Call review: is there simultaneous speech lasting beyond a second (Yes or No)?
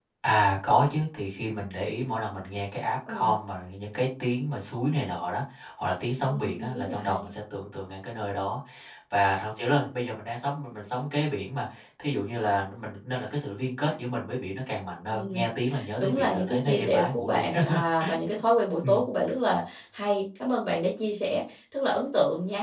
Yes